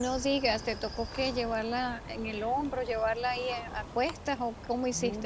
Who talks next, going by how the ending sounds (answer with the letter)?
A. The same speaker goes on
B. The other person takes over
B